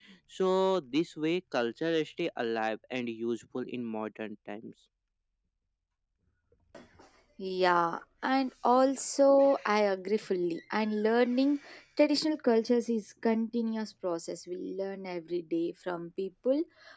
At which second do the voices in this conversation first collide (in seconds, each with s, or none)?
none